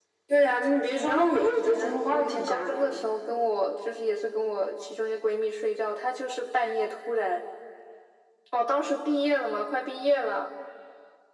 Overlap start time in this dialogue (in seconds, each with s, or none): 1.0 s